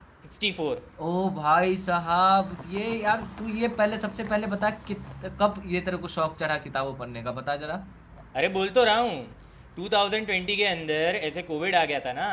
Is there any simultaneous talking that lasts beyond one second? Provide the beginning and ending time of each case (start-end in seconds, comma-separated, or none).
none